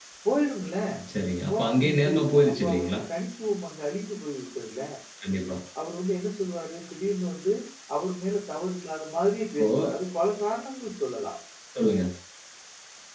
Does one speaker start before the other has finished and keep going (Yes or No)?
Yes